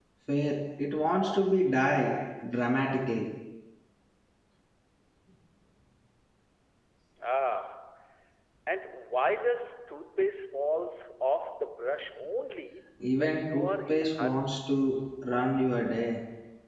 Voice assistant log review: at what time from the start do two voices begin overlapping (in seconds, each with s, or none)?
13.0 s